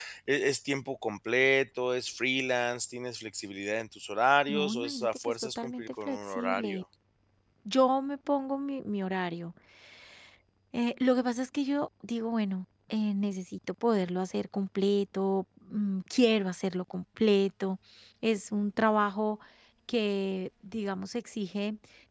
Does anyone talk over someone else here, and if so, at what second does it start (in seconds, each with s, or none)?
4.5 s